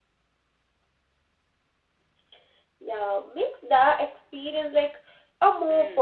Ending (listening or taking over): taking over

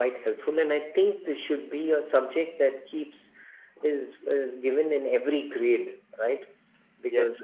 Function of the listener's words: listening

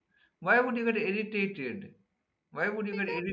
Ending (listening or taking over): listening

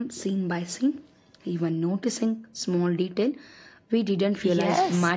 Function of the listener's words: taking over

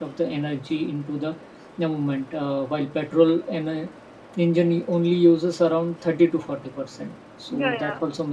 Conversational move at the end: taking over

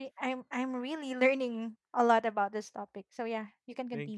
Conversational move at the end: taking over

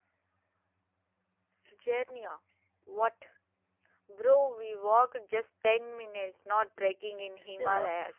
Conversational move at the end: taking over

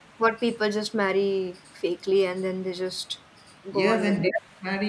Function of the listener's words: taking over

